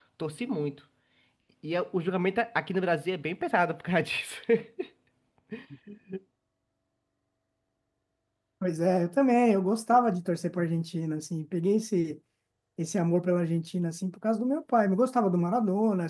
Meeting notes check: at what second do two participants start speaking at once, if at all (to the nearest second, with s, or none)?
none